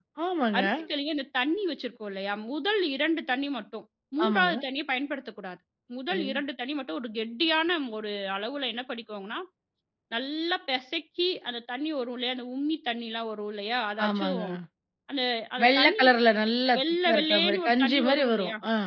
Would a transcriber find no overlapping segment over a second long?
No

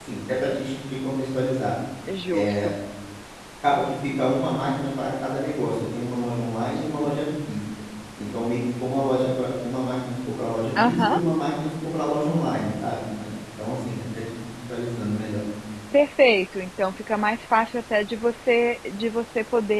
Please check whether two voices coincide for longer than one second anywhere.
No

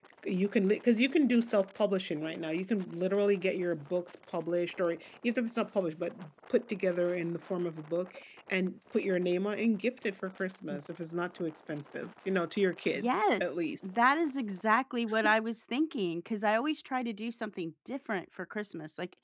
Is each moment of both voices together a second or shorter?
Yes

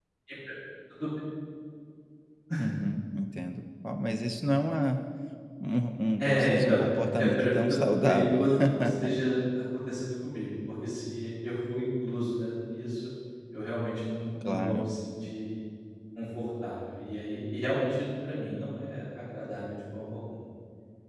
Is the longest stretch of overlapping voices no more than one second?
No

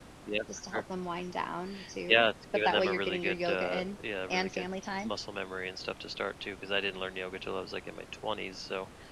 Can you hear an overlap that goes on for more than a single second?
Yes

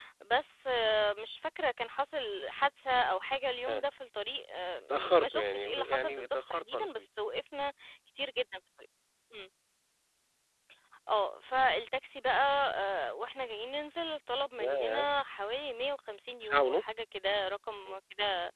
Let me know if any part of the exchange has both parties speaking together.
Yes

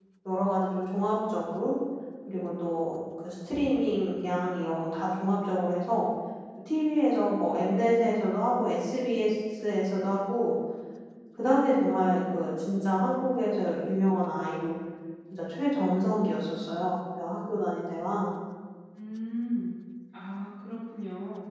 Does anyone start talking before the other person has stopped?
No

